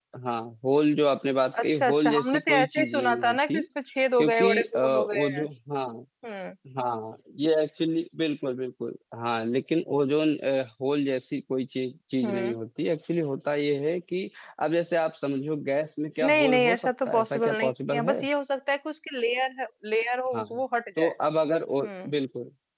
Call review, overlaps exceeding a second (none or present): present